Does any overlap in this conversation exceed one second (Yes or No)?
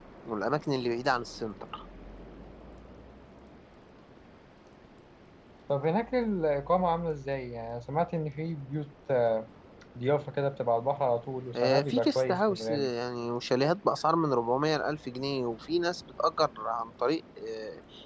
Yes